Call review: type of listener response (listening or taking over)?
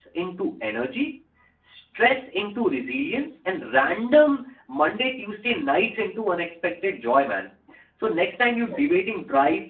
listening